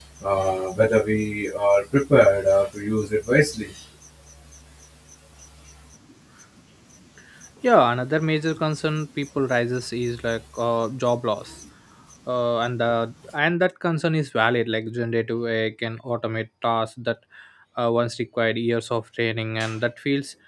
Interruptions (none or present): none